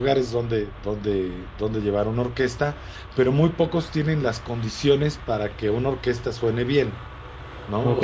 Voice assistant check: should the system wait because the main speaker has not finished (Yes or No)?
Yes